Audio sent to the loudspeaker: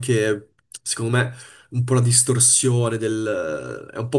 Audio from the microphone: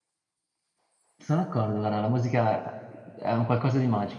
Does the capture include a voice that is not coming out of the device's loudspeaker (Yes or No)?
Yes